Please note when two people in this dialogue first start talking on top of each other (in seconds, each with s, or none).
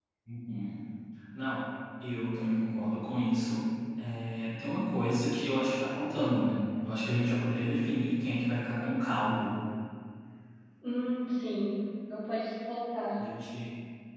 none